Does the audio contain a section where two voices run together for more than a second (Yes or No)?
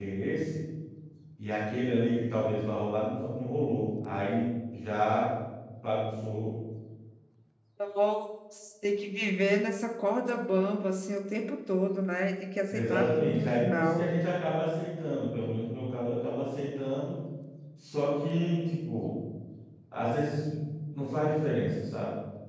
Yes